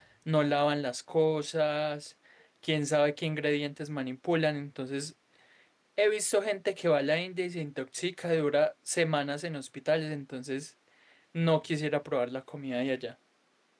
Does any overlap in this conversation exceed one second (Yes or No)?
No